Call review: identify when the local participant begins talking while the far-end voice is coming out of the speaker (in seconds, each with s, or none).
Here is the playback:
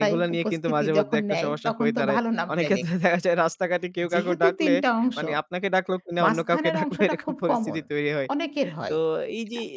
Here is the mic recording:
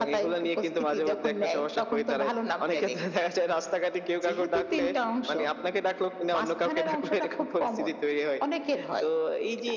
none